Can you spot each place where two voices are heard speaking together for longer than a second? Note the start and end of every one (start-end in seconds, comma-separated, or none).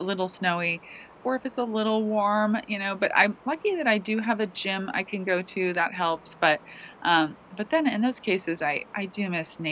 none